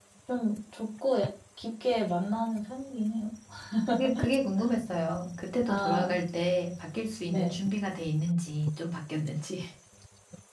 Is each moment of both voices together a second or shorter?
Yes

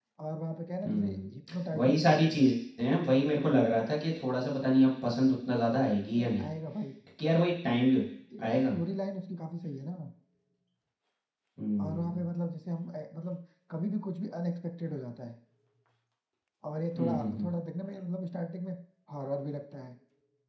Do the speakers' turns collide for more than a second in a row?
Yes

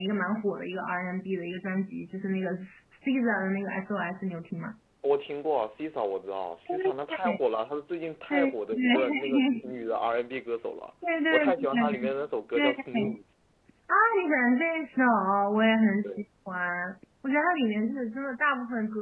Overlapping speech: Yes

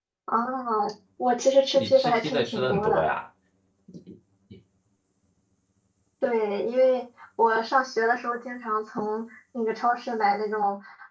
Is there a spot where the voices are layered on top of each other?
Yes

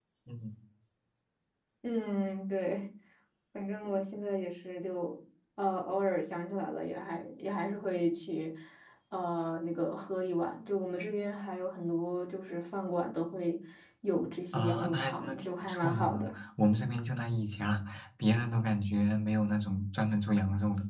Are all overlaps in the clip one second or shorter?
No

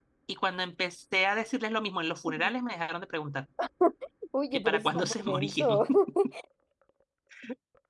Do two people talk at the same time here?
Yes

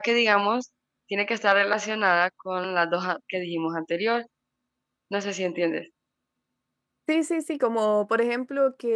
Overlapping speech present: No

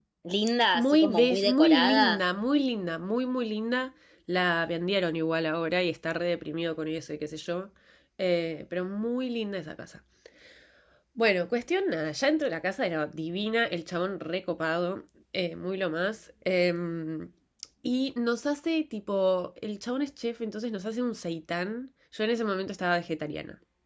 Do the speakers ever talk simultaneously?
Yes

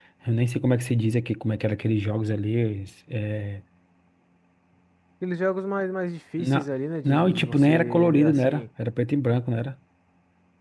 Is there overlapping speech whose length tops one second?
Yes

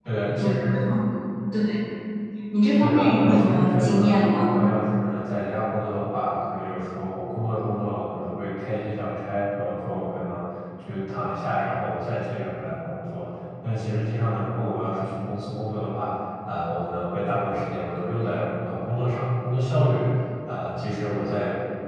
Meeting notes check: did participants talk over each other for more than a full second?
Yes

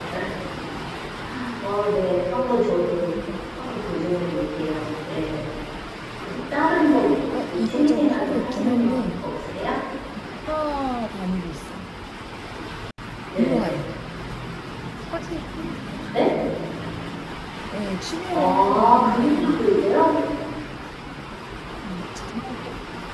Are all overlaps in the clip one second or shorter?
No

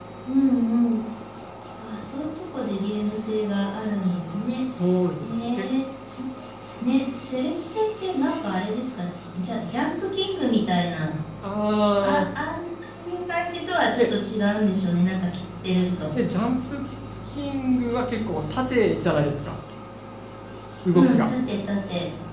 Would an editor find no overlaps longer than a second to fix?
Yes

